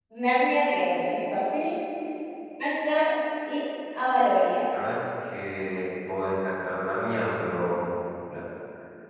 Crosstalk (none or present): none